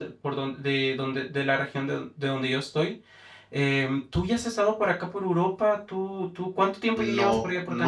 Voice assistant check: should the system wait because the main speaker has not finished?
No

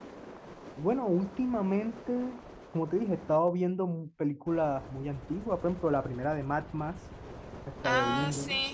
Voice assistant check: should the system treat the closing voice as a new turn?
Yes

